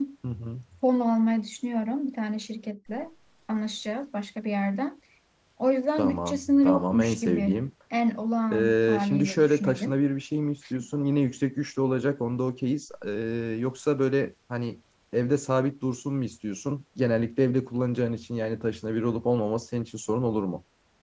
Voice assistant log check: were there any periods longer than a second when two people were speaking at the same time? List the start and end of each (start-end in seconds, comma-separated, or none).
6.0-7.6, 8.5-10.0